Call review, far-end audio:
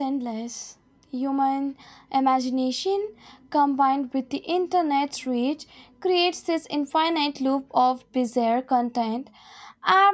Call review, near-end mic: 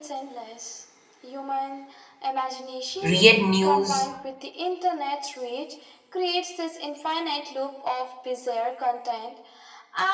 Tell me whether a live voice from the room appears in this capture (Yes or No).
Yes